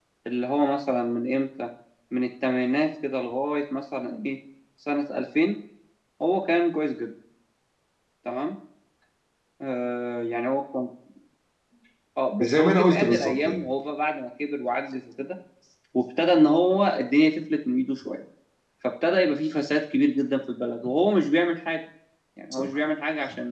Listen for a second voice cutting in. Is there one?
Yes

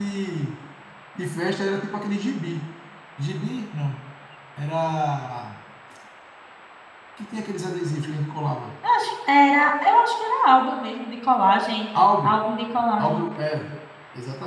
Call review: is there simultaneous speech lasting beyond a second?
No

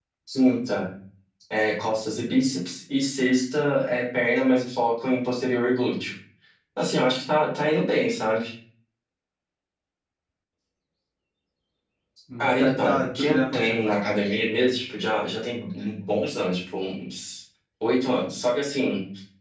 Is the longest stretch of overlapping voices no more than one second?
No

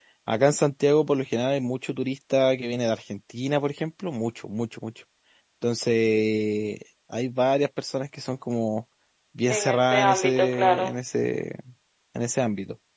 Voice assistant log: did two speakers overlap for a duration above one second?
Yes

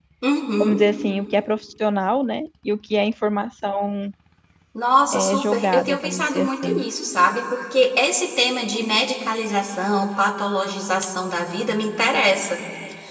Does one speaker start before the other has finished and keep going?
Yes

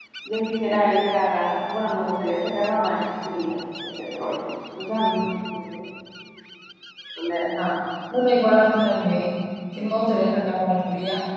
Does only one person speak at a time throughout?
Yes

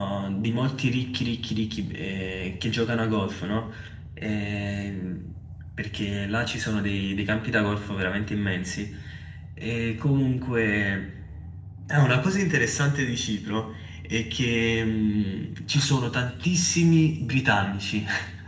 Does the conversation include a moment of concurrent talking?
No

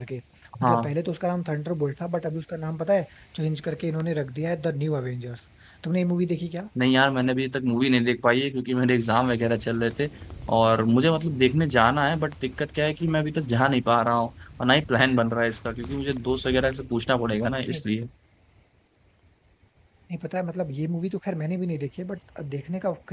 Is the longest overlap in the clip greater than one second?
No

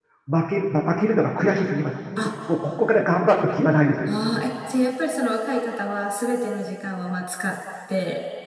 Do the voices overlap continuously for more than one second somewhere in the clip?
No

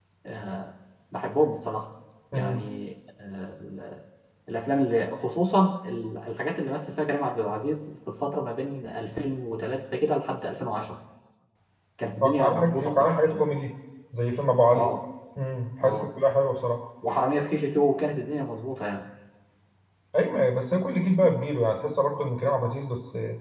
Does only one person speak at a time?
No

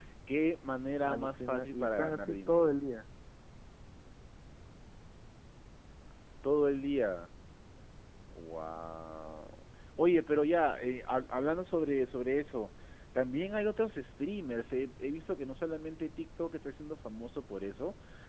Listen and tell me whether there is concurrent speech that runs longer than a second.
Yes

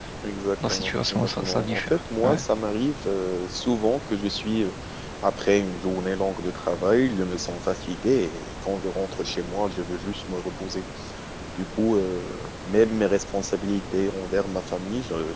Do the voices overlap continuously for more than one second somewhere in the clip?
Yes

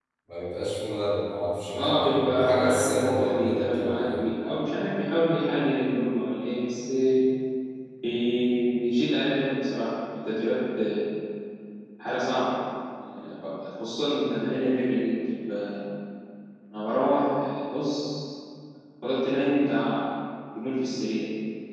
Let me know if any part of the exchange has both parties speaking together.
Yes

